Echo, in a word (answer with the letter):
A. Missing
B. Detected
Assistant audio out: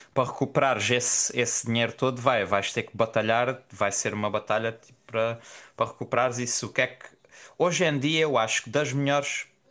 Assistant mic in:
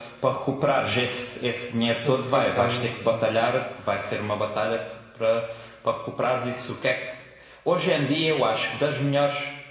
B